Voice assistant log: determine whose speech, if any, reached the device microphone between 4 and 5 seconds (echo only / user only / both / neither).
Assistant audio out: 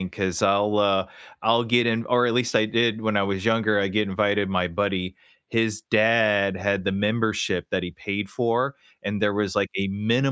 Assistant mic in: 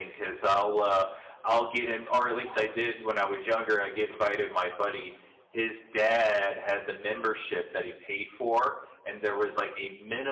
echo only